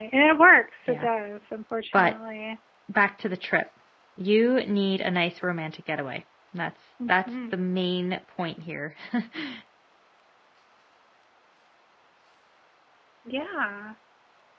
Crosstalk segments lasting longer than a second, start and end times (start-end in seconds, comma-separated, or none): none